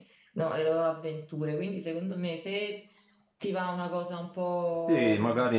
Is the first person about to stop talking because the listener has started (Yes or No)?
Yes